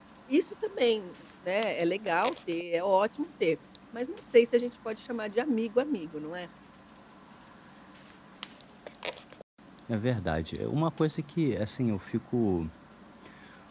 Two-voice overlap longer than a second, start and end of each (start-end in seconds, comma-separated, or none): none